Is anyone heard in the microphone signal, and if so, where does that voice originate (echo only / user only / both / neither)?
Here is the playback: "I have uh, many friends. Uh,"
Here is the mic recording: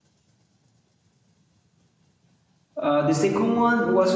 user only